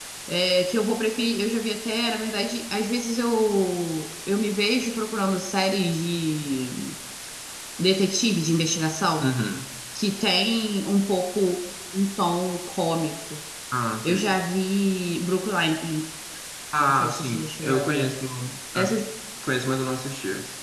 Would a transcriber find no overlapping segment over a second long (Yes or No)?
No